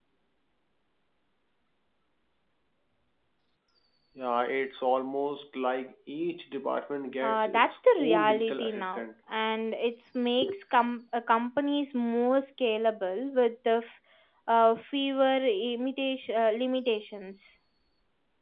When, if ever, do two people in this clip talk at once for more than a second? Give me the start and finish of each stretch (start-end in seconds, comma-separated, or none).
7.2-9.1